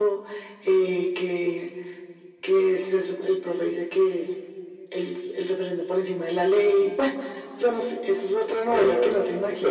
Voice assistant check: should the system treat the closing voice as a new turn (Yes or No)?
Yes